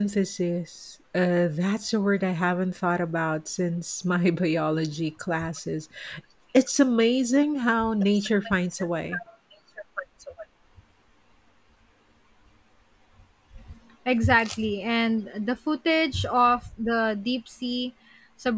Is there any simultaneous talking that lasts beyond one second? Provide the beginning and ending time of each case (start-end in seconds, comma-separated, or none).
none